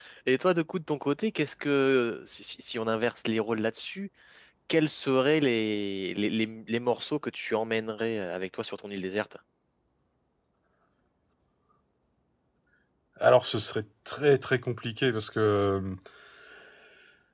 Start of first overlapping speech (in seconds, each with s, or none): none